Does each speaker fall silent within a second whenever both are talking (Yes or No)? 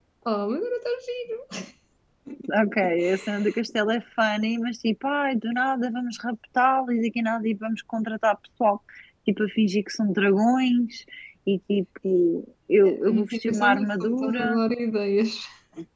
No